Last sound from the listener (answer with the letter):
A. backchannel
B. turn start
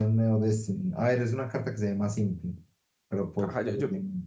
B